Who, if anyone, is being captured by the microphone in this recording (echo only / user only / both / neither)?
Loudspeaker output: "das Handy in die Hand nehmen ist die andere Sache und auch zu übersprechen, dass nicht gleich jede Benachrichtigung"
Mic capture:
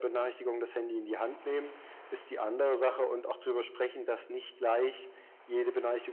echo only